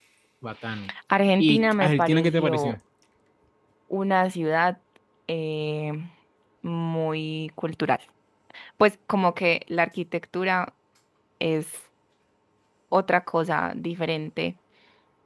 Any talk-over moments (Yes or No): Yes